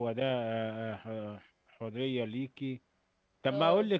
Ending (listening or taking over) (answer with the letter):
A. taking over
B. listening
B